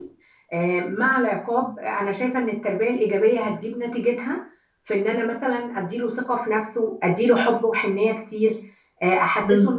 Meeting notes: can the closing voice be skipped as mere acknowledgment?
Yes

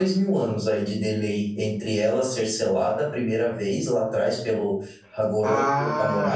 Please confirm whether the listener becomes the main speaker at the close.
Yes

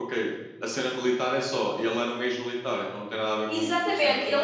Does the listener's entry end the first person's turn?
Yes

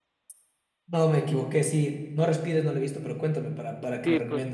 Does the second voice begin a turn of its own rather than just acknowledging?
Yes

